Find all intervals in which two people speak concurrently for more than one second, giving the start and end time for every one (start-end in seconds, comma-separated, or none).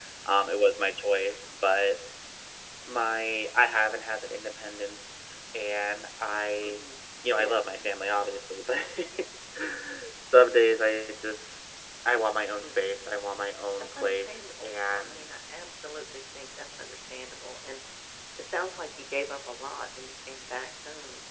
14.0-15.3